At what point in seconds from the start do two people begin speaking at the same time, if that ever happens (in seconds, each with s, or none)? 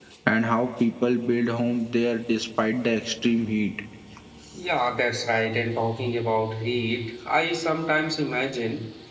none